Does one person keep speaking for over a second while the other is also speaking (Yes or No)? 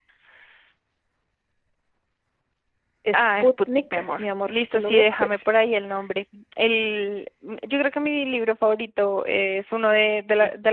Yes